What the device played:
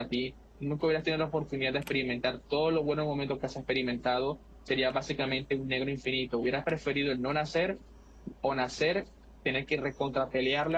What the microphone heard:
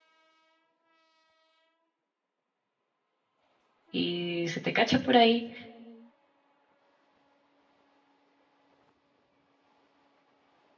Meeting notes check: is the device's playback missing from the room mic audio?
Yes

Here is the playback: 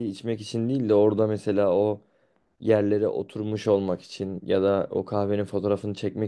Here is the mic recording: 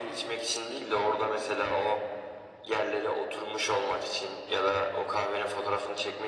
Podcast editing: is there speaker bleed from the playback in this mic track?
Yes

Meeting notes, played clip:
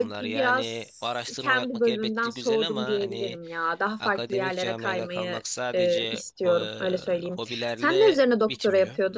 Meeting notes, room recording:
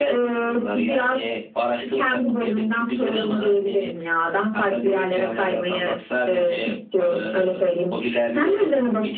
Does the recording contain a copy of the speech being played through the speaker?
Yes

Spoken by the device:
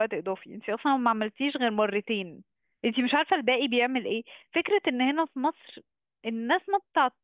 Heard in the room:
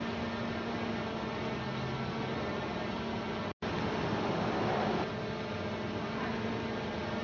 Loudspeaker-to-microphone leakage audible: No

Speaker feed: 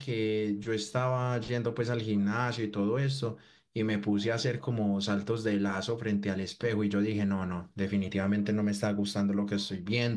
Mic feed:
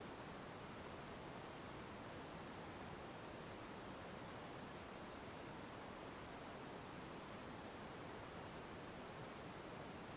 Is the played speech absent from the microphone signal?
Yes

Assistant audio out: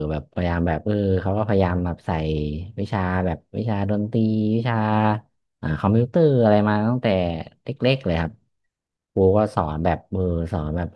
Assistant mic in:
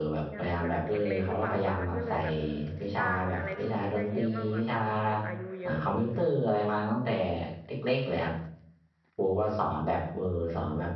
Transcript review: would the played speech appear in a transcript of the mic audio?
Yes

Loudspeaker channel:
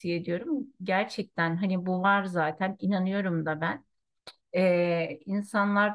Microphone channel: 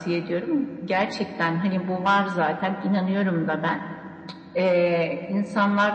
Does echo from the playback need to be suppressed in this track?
Yes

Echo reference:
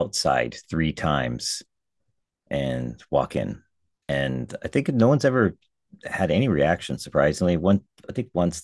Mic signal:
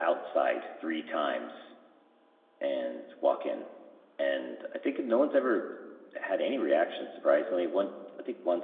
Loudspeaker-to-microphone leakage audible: Yes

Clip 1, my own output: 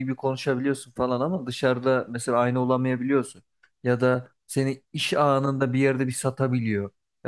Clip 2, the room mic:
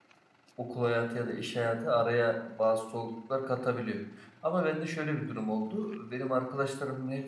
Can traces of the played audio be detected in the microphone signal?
No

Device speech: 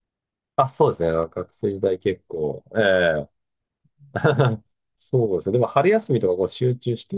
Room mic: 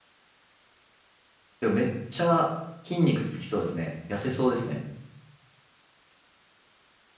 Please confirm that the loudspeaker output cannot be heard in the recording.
Yes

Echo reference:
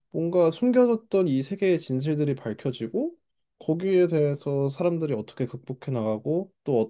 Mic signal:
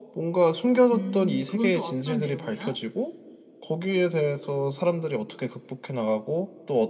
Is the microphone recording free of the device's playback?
No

